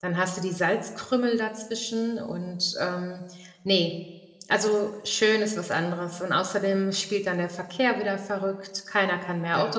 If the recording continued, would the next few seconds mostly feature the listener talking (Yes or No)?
No